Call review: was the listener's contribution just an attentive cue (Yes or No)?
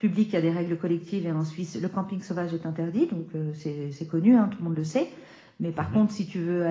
Yes